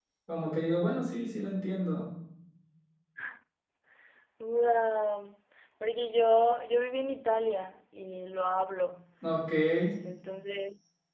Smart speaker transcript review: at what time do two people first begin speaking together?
none

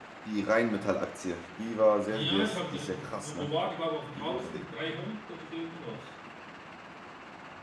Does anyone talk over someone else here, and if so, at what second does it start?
2.1 s

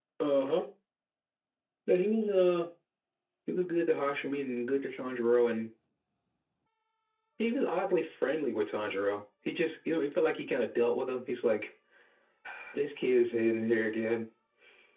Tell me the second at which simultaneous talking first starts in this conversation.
none

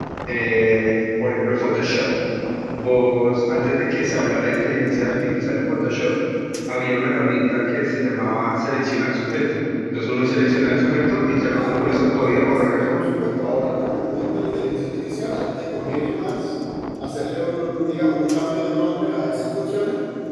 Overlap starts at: 11.5 s

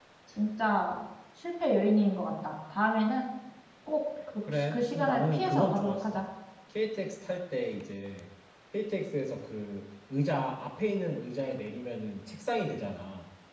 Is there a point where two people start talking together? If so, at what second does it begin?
4.5 s

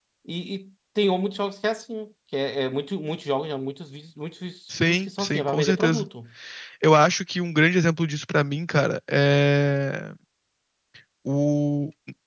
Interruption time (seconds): 4.7 s

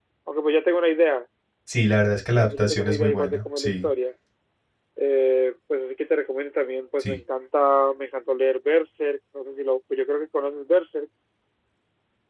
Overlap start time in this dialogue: 2.4 s

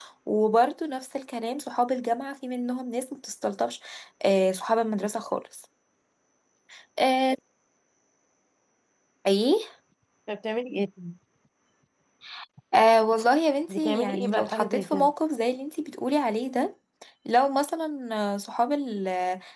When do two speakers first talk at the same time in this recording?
13.7 s

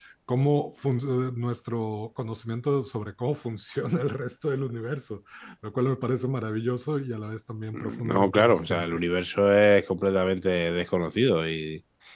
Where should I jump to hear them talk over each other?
7.7 s

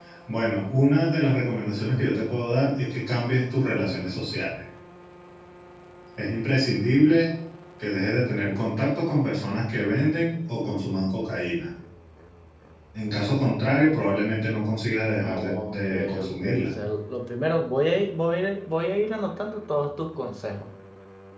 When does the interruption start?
15.2 s

